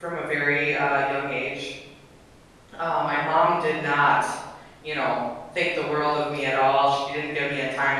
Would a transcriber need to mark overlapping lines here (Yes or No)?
No